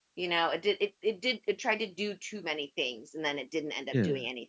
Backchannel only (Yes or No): Yes